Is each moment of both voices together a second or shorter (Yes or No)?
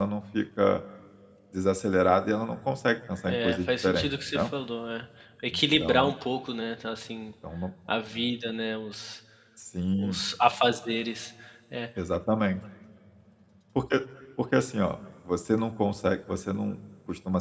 No